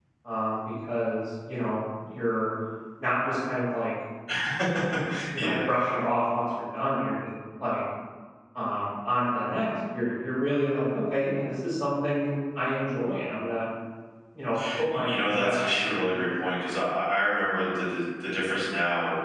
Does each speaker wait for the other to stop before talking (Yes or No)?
No